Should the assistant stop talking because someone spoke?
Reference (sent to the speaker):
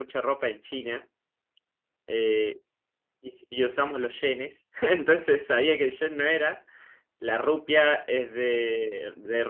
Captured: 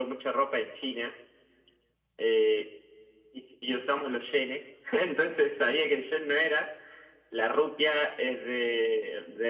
No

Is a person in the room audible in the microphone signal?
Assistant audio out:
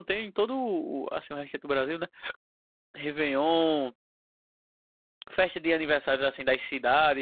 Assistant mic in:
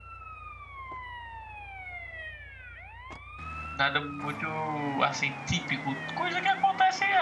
Yes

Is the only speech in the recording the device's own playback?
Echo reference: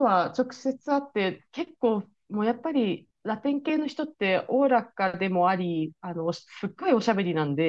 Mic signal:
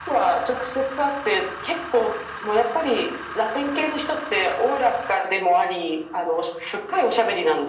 Yes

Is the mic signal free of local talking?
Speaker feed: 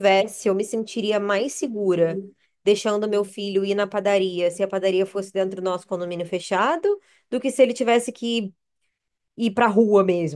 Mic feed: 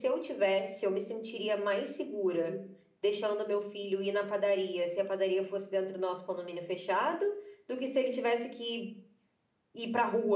Yes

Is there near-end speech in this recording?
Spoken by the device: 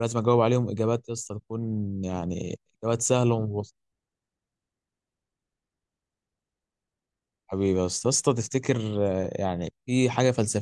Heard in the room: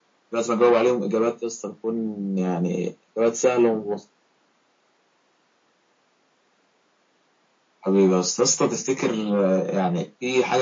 No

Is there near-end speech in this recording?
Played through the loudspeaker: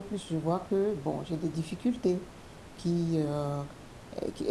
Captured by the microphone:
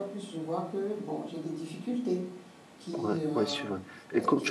Yes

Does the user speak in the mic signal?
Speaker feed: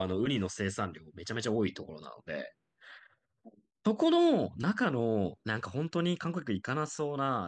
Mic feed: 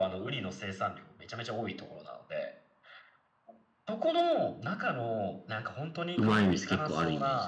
Yes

